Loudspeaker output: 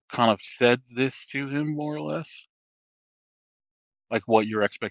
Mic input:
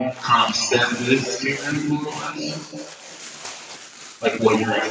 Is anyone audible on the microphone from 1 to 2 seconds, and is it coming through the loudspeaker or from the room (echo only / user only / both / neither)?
echo only